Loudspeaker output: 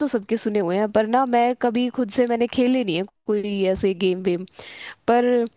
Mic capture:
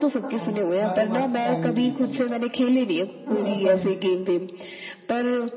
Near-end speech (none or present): present